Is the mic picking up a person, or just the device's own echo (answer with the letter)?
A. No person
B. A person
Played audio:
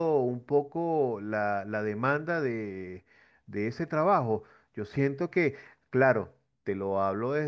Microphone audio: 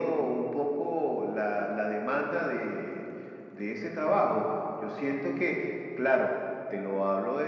A